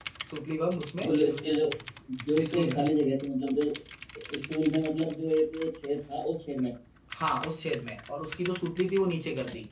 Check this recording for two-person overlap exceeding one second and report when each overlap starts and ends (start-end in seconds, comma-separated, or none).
none